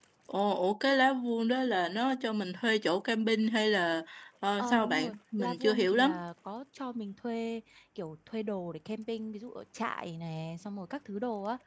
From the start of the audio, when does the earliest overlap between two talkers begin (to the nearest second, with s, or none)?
5 s